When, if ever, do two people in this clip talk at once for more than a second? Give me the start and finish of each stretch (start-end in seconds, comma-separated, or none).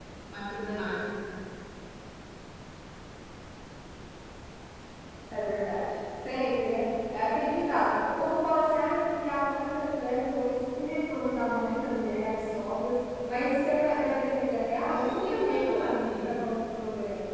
14.7-16.4